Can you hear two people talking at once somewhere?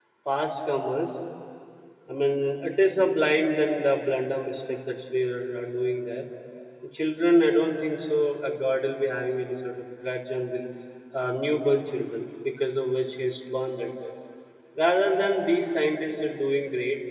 No

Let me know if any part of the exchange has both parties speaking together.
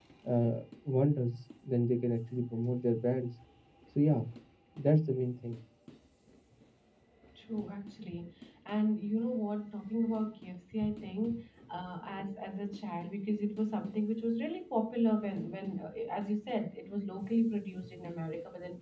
No

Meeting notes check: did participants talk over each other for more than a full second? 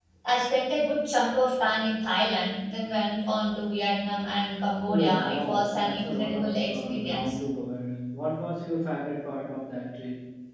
Yes, from 4.9 s

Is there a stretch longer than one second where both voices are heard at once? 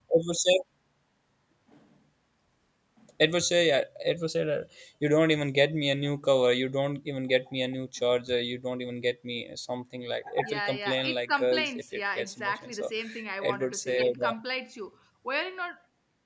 Yes, from 10.4 s

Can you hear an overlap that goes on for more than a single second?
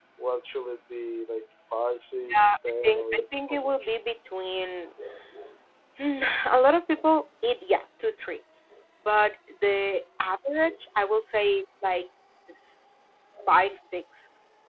Yes, from 2.1 s

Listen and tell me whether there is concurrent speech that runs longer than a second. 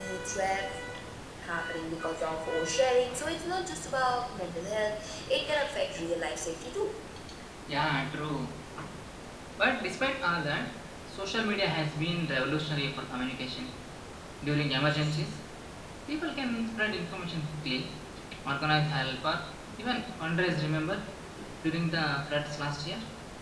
No

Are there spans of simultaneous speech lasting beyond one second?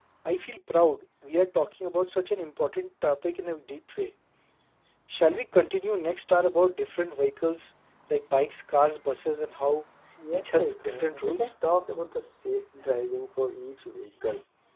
Yes, from 10.3 s

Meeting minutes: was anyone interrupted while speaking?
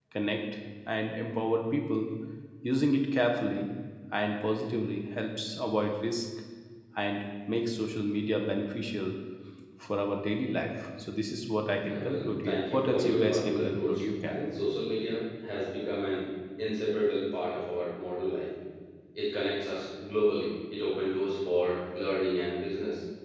Yes, from 11.8 s

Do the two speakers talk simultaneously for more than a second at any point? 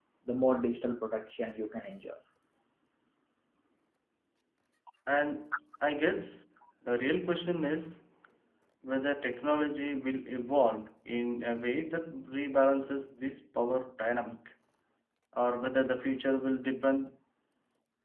No

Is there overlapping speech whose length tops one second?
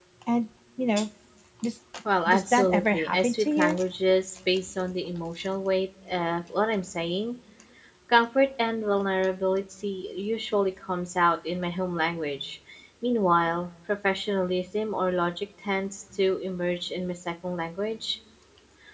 Yes, from 2.3 s

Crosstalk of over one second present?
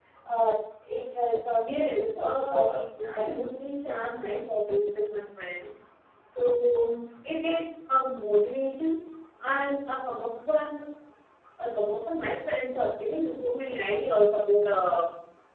Yes, from 1.6 s

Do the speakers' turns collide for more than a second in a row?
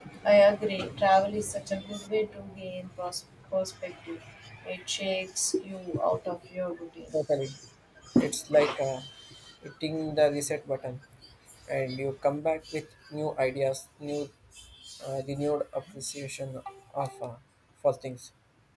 No

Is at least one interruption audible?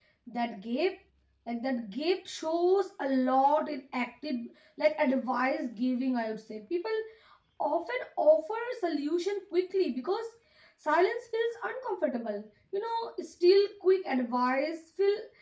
No

